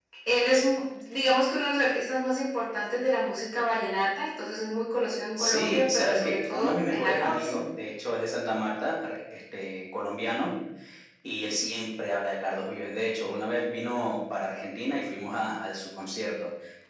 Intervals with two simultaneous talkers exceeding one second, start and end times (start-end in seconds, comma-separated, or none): 5.4-7.6